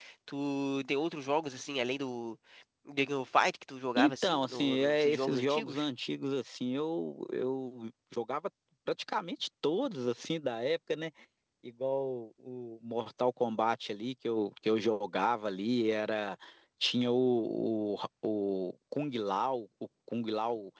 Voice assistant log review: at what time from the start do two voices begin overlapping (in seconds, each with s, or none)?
4.0 s